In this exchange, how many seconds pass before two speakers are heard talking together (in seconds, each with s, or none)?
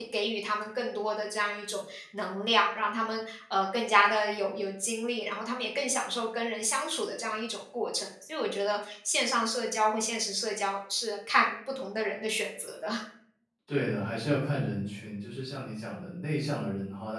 none